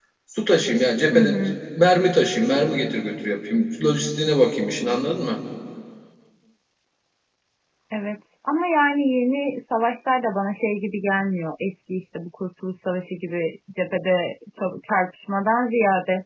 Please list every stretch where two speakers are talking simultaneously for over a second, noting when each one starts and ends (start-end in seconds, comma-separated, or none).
none